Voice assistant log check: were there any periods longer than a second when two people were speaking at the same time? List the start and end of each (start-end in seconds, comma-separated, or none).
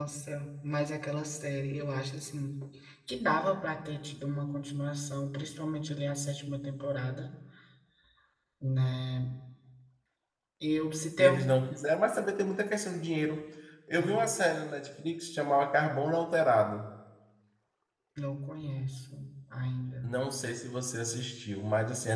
none